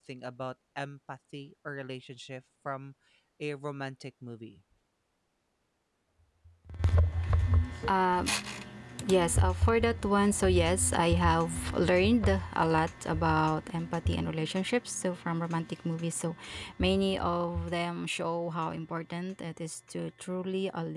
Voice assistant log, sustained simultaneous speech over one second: none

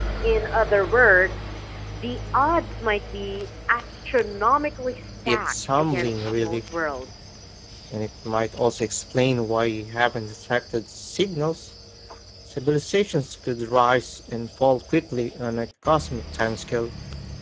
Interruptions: present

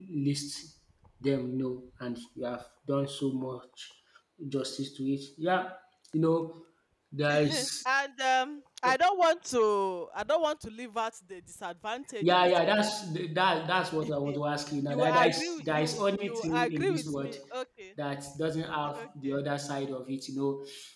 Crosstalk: present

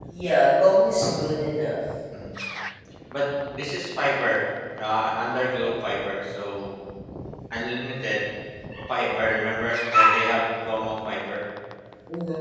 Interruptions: none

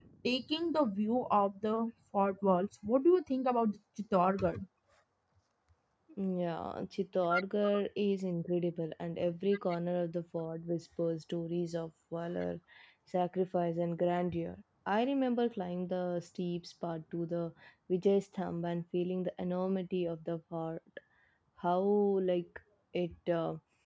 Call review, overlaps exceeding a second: none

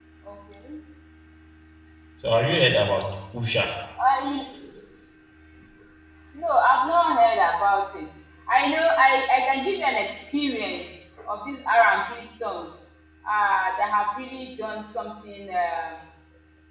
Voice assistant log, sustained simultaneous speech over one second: none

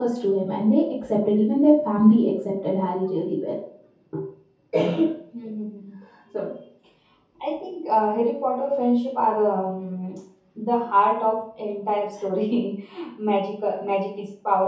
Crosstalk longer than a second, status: none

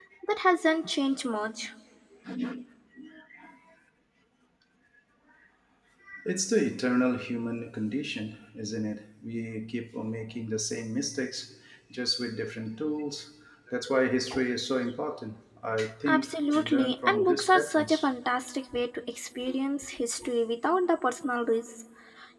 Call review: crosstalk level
present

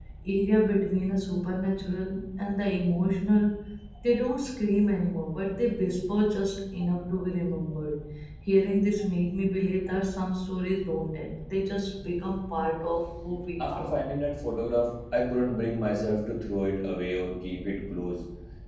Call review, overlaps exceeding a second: none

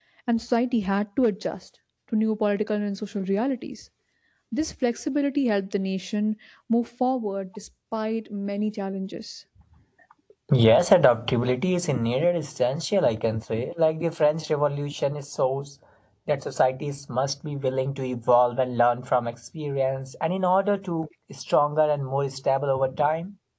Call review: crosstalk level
none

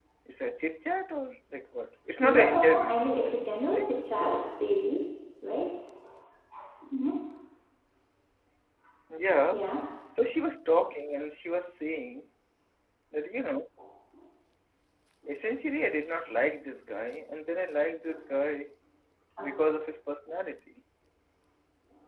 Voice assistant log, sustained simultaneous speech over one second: present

